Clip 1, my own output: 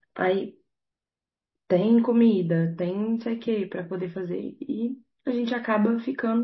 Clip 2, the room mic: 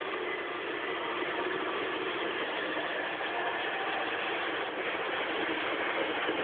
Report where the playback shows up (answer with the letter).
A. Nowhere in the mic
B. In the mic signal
A